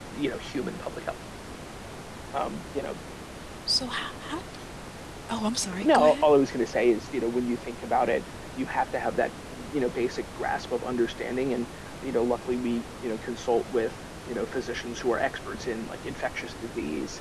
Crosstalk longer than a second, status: none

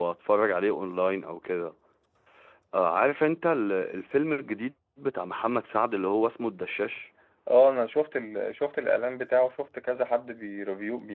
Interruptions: none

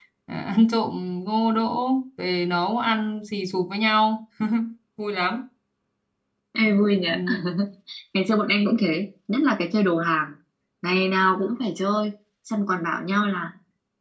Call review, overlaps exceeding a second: none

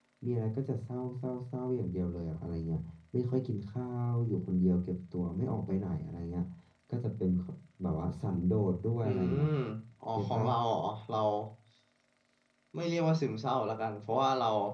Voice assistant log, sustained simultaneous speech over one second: none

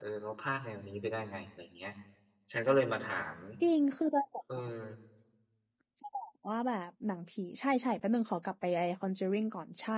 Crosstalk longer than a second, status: none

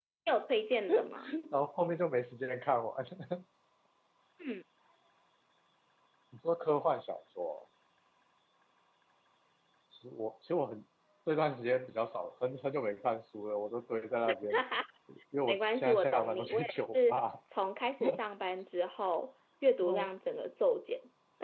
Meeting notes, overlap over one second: present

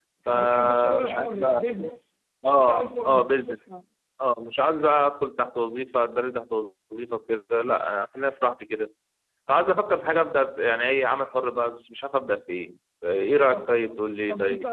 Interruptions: present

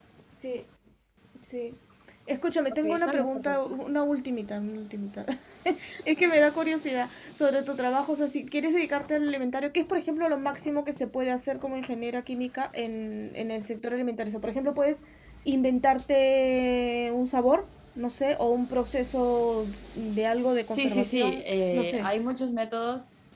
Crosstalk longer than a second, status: present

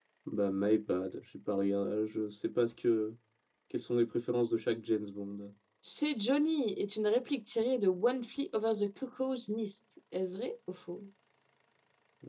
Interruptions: none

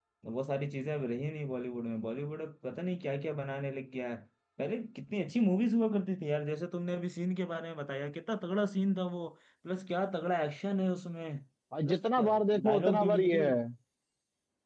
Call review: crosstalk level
present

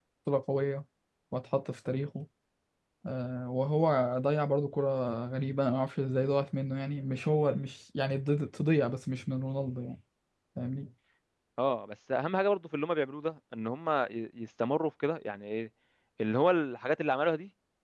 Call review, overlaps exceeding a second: none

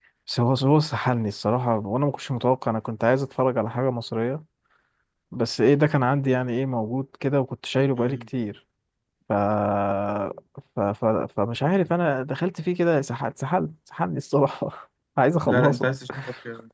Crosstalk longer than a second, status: none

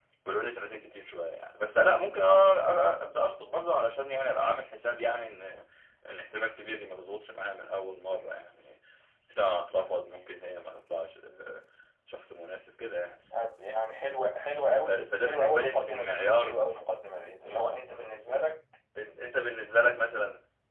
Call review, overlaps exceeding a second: present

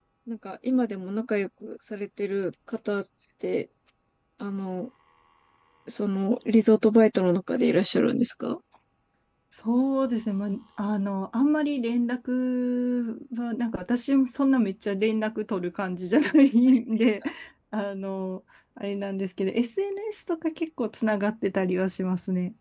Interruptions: none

